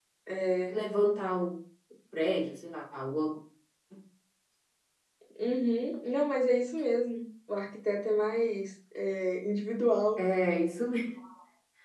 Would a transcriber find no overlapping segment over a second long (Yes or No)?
Yes